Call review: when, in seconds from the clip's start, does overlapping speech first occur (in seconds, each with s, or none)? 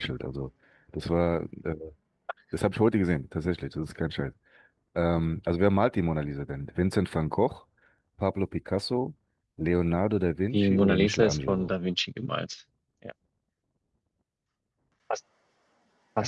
10.5 s